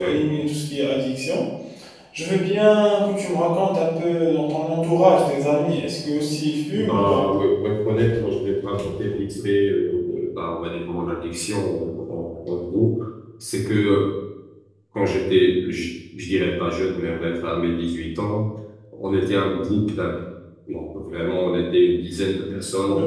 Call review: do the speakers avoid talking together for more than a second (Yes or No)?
Yes